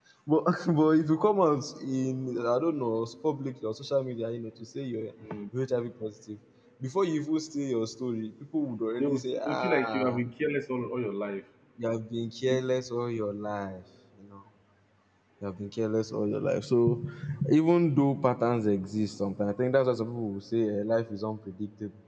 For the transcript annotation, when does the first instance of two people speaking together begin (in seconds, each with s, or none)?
9.0 s